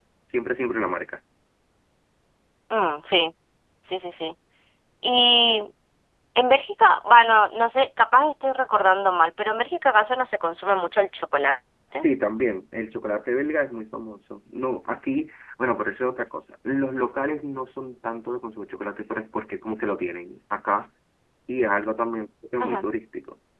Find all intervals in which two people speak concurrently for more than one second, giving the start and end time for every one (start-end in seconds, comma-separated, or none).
none